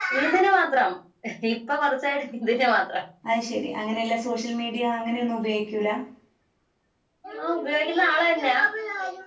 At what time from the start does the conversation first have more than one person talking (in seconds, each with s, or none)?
none